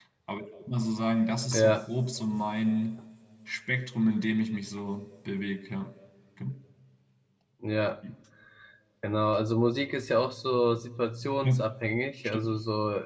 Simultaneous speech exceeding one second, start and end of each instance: none

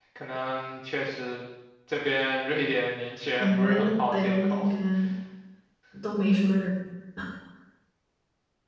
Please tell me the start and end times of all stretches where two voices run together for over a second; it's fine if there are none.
3.4-4.7

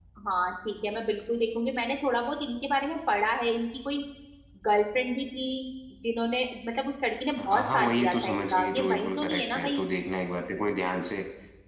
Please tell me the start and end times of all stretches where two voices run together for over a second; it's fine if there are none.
7.4-9.8

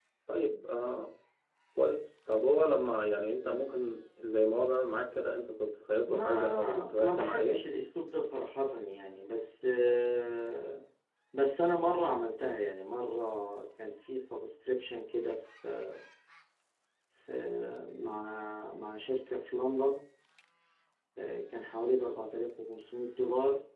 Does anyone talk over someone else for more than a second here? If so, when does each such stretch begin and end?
6.1-7.6

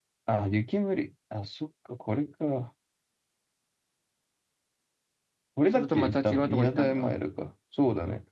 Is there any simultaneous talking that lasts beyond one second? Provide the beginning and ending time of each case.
5.7-7.1

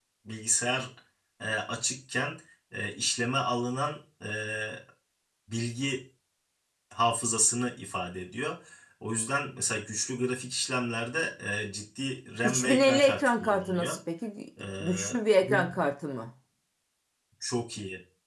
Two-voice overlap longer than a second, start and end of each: 12.4-14.0

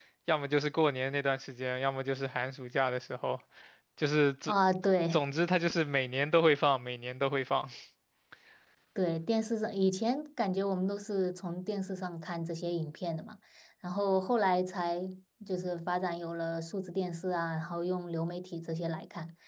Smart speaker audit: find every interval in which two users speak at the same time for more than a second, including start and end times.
none

